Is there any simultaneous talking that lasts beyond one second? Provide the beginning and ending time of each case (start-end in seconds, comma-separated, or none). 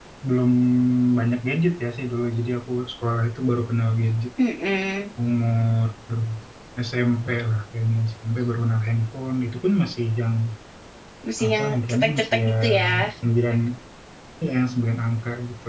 11.5-12.8